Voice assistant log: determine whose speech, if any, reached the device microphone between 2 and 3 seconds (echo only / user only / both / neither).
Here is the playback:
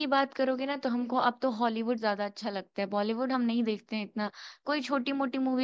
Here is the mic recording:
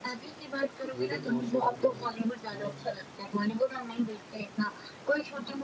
both